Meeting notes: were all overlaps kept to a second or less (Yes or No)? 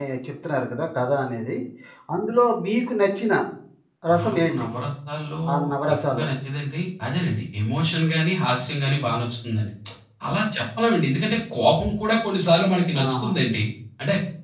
Yes